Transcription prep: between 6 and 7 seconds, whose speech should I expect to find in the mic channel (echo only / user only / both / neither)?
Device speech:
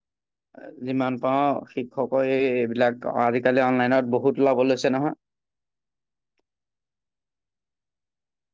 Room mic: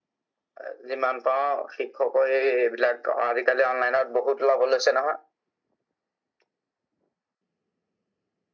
neither